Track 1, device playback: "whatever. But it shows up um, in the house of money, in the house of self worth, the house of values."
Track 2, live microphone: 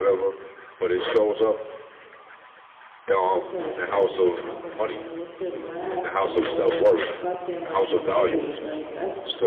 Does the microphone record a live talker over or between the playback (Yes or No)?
Yes